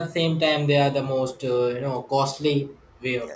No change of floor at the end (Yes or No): No